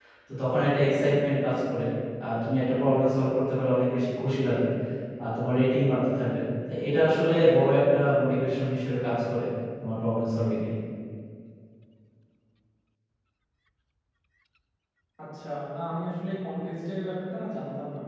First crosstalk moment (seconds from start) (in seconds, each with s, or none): none